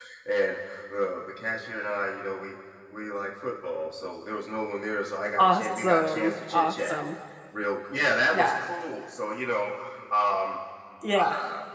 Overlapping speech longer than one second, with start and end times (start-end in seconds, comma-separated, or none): 5.4-7.0